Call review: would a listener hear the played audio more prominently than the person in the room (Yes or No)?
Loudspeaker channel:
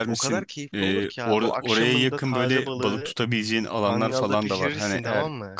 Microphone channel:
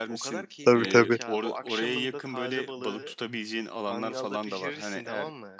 No